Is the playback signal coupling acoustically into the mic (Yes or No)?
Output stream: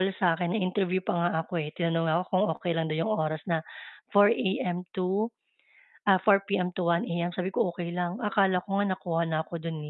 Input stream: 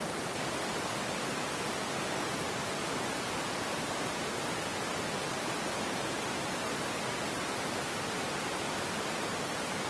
No